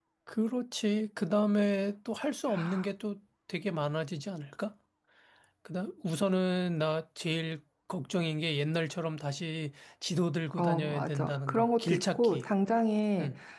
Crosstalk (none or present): present